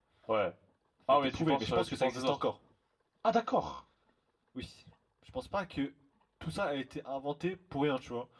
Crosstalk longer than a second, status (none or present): present